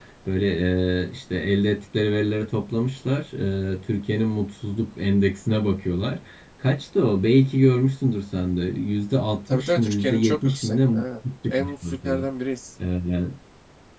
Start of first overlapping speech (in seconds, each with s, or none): 9.5 s